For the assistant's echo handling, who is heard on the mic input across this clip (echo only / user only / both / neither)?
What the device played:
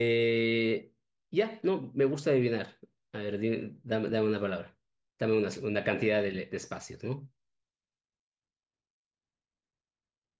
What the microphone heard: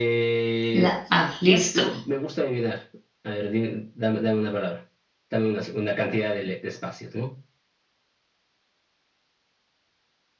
both